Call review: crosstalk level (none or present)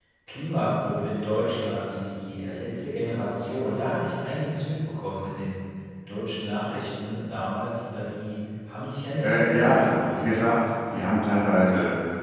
present